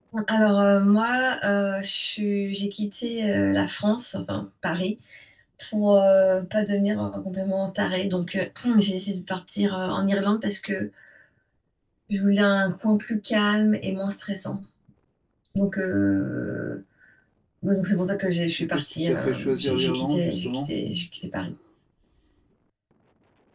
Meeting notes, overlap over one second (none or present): present